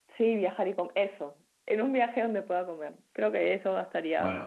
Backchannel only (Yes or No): No